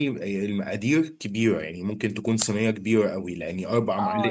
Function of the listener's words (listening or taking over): taking over